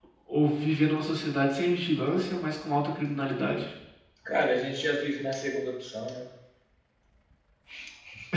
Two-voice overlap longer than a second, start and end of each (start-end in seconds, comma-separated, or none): none